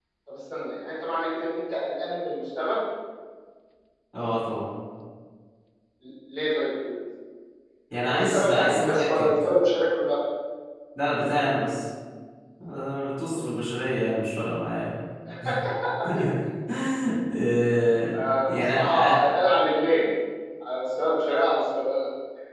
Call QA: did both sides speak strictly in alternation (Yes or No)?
No